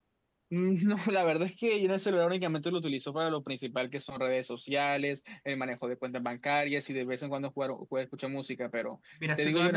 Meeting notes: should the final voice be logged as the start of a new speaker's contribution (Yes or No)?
Yes